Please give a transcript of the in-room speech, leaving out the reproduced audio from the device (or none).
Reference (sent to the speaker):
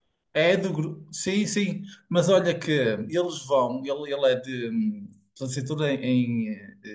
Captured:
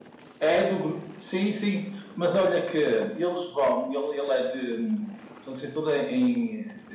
none